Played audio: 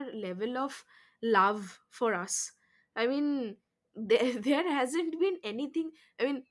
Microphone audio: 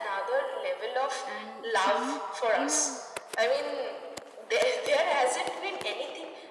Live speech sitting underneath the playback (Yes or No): Yes